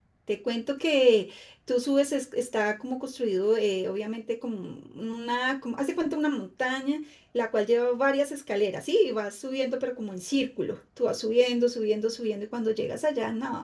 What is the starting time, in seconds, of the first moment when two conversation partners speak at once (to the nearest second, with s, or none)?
none